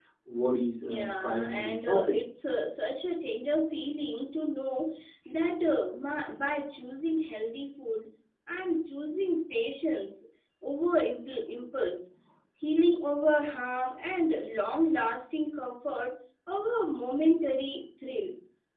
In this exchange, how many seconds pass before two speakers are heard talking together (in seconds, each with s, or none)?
0.8 s